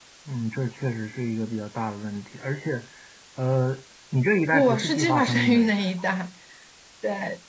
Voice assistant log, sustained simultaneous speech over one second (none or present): present